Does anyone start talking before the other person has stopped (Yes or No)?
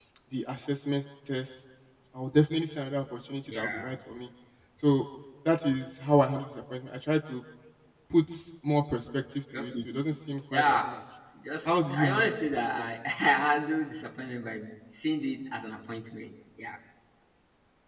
Yes